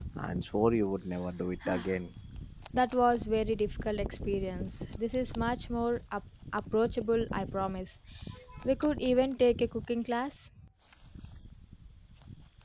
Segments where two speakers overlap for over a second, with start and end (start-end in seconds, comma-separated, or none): none